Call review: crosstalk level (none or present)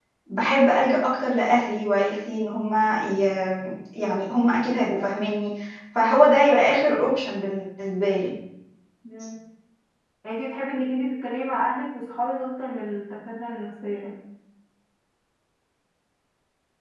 none